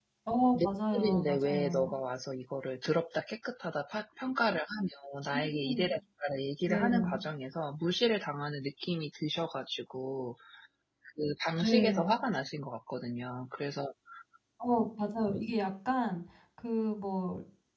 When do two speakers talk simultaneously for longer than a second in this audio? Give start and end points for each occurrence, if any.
0.5-1.9

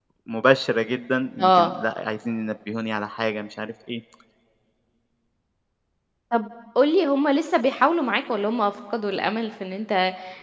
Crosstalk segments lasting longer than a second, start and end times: none

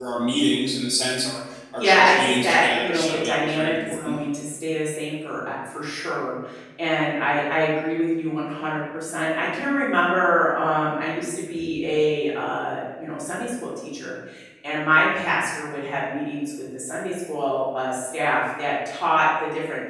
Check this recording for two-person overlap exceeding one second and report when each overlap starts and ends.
1.8-4.2

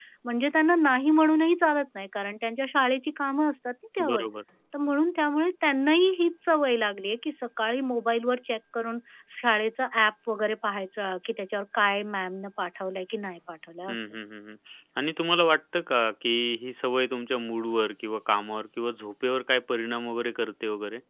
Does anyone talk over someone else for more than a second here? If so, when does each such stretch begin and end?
none

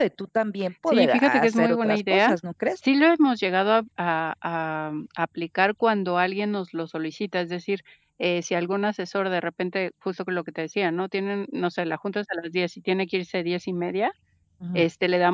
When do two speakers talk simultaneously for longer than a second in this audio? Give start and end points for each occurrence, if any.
0.9-2.3

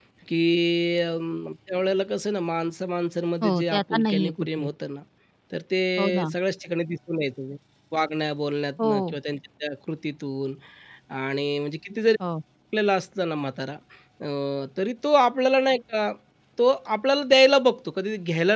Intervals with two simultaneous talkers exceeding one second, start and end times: 3.4-4.7

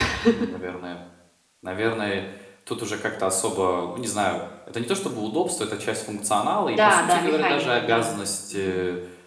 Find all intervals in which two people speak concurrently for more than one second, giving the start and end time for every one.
6.7-8.0

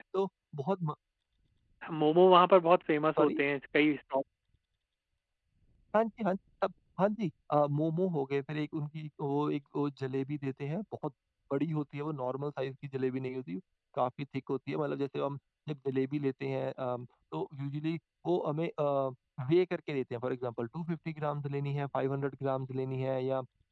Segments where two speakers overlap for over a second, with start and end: none

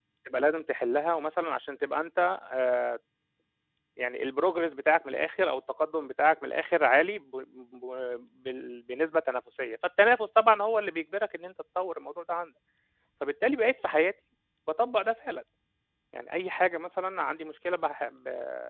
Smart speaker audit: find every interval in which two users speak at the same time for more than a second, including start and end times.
none

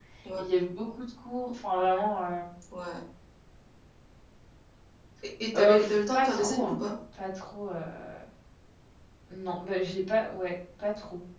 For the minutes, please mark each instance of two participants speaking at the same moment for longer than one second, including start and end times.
5.6-6.8

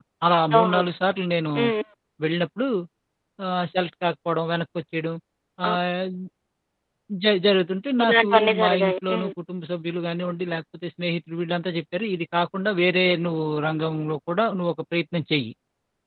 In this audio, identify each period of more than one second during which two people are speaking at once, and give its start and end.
8.0-9.3

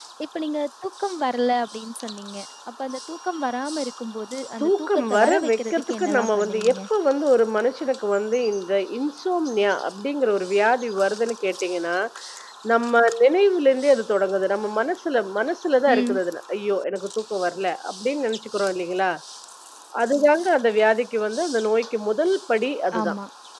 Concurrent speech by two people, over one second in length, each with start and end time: 4.6-6.8

